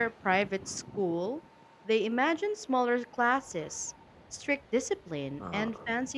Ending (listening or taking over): listening